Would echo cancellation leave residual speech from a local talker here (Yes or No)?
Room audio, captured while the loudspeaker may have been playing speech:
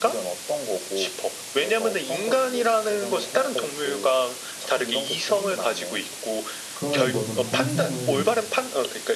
Yes